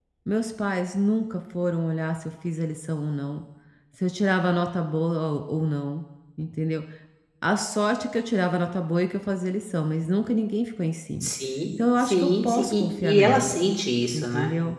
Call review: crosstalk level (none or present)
present